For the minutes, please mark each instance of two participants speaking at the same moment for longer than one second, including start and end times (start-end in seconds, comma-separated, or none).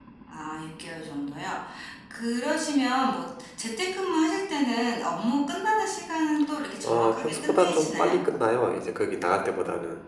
6.8-8.2